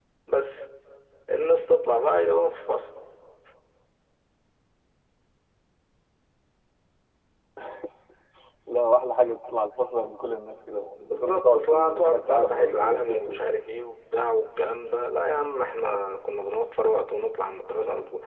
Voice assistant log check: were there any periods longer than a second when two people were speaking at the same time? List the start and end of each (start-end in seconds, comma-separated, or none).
11.1-13.4